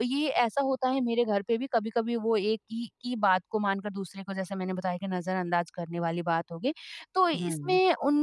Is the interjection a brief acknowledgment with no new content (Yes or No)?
Yes